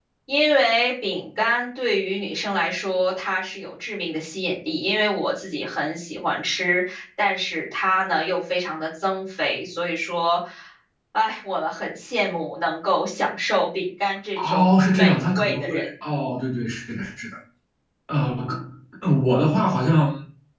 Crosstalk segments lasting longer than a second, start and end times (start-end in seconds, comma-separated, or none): 14.4-15.9